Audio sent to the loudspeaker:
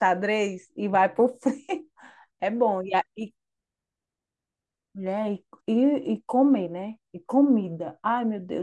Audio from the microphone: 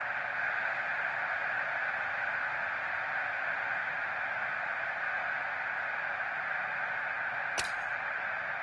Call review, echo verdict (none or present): none